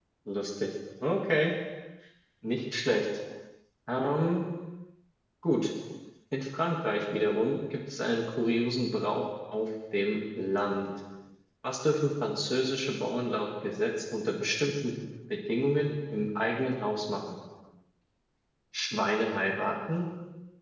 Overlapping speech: No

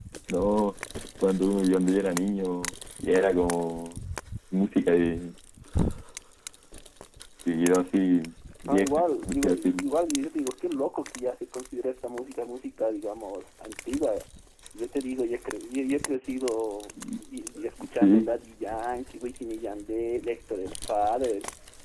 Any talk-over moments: Yes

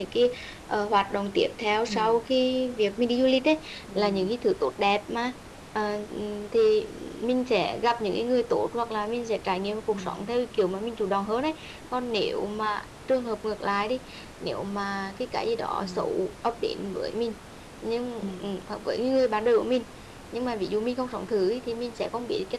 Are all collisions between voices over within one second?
Yes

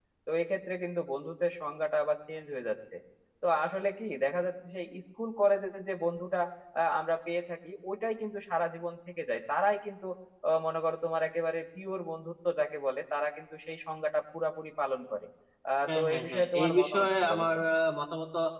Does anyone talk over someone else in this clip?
Yes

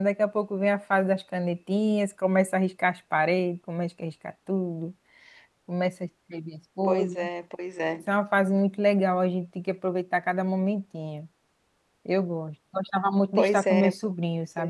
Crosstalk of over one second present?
No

